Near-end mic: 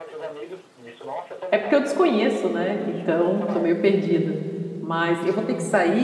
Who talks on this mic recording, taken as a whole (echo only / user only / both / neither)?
both